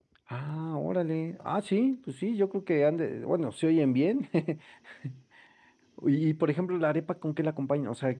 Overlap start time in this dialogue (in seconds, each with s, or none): none